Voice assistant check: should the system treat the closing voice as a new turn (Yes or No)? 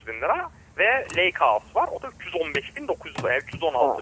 Yes